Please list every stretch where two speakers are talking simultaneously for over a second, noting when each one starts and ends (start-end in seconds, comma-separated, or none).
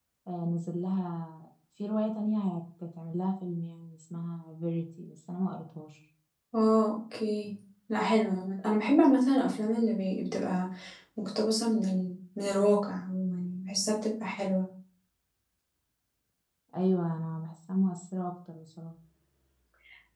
none